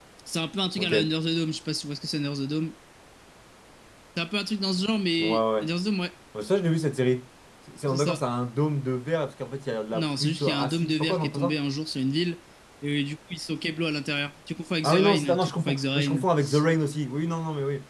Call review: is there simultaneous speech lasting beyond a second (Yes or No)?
Yes